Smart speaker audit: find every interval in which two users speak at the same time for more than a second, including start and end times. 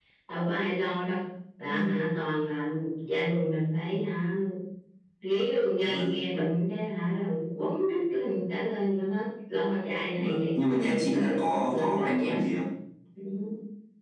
10.2-12.4

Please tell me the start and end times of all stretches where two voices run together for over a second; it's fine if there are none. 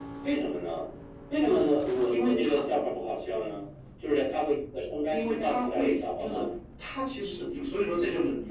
5.1-6.4

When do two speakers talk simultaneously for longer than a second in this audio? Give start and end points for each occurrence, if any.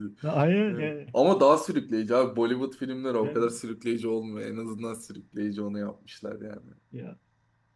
none

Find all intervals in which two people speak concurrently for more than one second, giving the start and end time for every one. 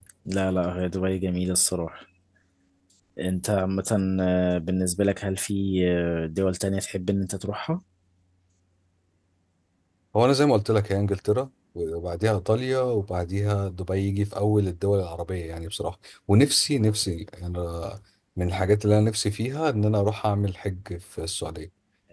none

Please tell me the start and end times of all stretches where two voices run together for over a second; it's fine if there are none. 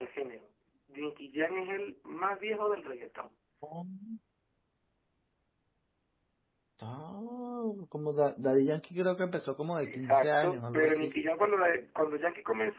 9.8-11.1

